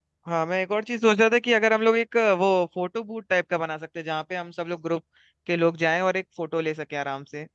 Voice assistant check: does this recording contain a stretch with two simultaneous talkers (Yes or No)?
No